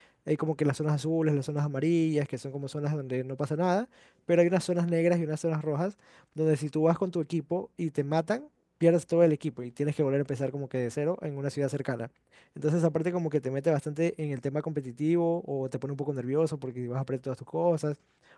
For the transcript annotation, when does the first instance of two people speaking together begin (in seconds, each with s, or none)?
none